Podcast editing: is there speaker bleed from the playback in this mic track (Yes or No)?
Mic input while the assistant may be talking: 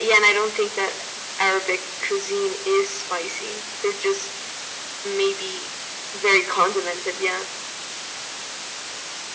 Yes